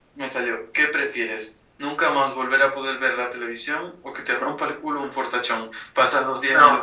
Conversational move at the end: listening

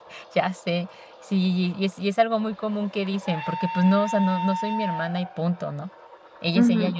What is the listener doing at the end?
taking over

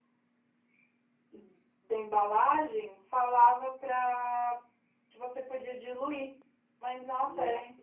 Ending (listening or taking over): listening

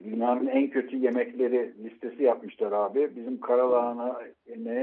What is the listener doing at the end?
listening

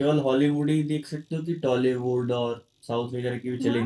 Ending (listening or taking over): taking over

